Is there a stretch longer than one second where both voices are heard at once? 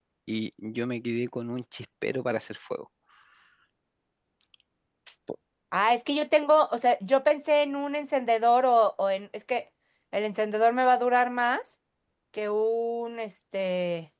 No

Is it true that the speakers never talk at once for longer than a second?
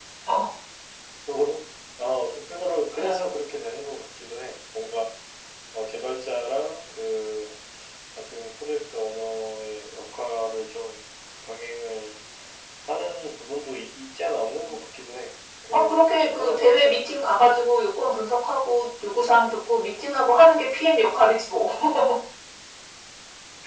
No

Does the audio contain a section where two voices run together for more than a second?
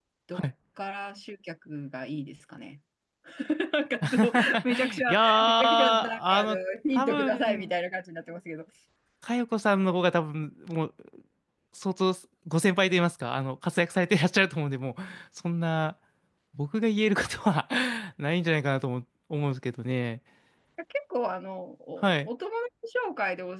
Yes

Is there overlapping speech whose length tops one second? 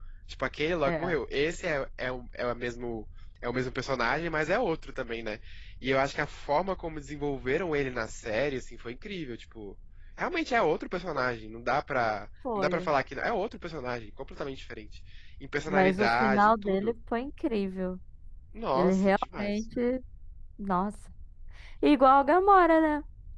Yes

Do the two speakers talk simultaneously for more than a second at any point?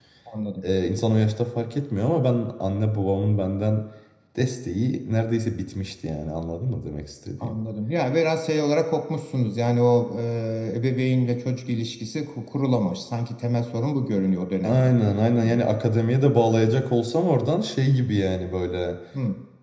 No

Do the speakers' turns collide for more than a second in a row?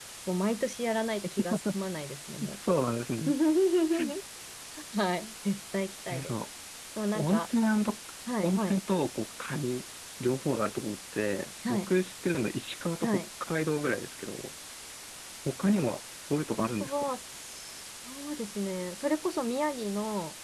No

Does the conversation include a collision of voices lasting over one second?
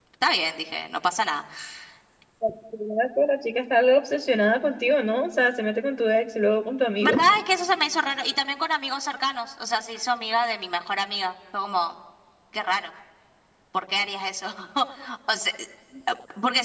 No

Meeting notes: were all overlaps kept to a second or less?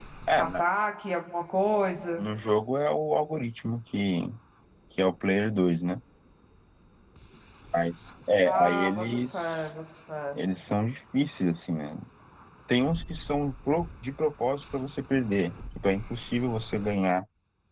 No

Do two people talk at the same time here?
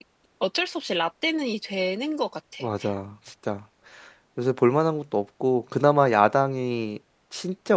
No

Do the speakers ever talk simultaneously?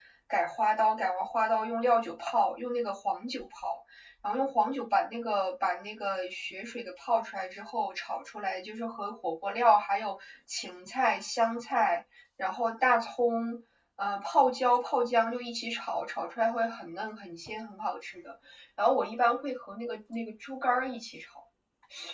No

